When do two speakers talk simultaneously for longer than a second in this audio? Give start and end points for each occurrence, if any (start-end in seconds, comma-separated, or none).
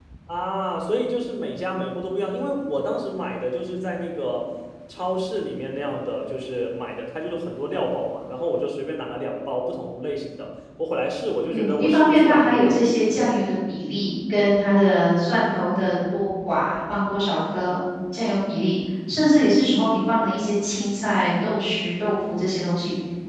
11.5-12.9